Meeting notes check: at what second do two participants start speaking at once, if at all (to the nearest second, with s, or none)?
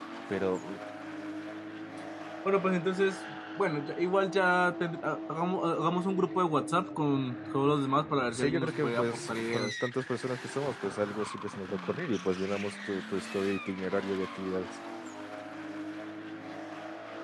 8 s